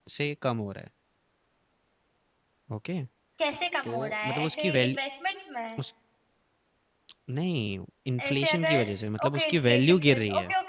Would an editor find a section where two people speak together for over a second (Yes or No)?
Yes